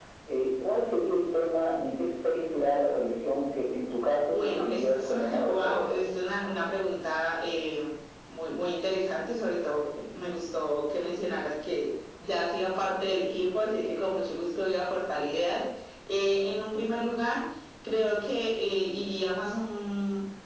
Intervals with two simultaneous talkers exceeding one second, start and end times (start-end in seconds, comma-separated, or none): 4.3-6.0